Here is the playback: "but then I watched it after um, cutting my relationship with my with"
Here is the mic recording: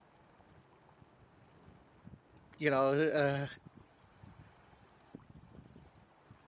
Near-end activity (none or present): present